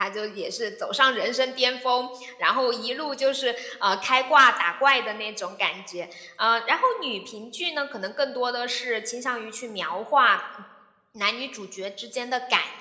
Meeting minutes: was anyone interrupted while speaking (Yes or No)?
No